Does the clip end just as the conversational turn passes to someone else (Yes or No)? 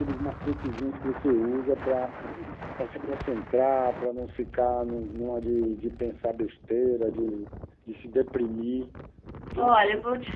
Yes